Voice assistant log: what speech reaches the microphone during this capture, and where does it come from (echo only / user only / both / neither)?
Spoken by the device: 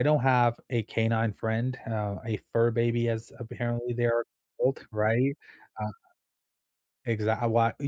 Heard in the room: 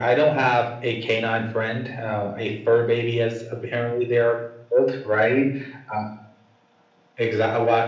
echo only